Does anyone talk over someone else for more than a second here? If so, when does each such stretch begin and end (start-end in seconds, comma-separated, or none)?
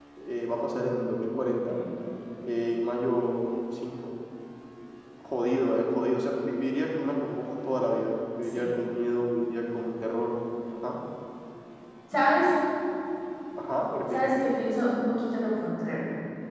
none